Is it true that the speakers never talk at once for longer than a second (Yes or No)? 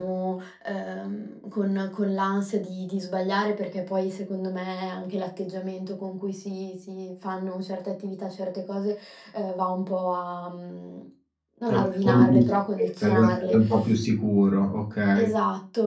No